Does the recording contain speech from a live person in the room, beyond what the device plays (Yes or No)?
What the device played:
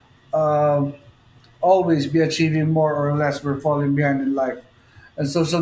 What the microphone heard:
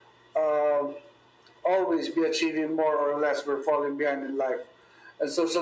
No